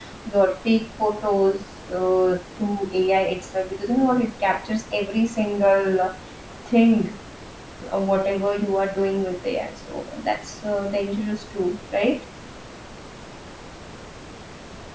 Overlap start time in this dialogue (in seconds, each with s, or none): none